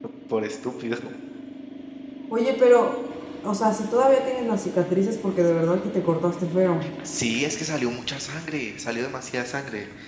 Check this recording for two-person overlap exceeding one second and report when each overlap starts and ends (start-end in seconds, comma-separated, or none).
none